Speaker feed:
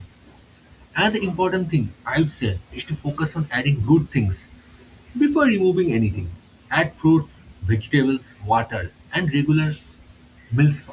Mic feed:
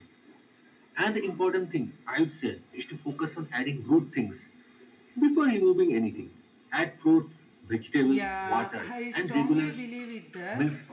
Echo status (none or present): present